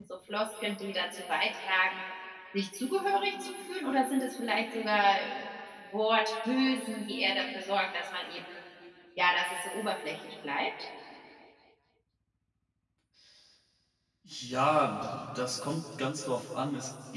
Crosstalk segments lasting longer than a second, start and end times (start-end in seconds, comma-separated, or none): none